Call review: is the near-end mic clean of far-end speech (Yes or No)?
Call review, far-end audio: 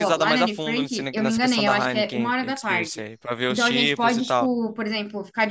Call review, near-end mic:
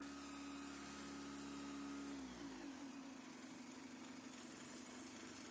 Yes